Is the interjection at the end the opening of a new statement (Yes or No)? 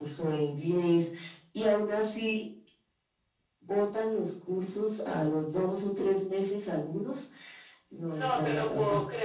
Yes